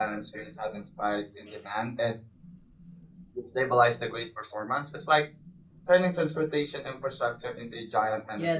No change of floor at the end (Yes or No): No